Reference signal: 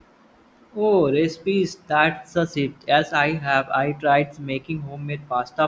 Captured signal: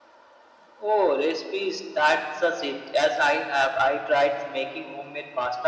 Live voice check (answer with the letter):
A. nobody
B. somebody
A